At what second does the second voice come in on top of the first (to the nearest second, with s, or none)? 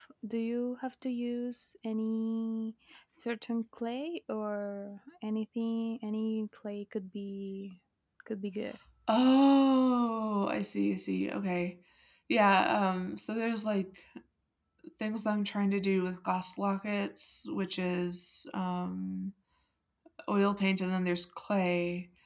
none